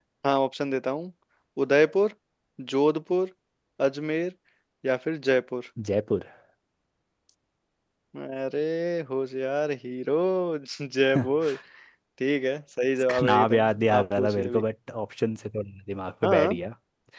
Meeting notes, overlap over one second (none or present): present